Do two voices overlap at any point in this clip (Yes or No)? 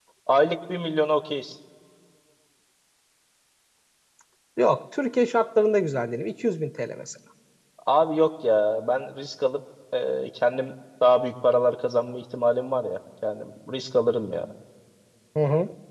No